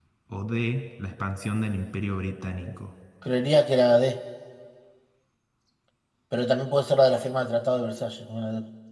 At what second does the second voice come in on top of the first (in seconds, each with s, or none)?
none